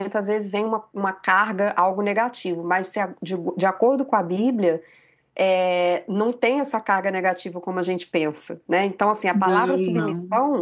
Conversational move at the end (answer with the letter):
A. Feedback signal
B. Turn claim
A